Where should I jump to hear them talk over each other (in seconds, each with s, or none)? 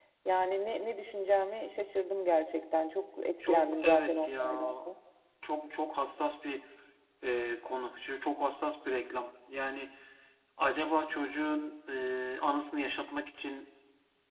3.4 s